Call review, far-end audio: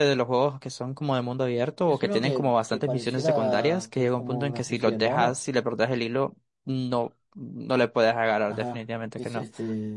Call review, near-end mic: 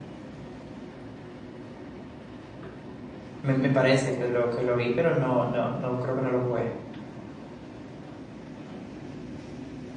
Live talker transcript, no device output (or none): Me, me parece que lo que lo vi, pero no, no, no creo que no lo jugué.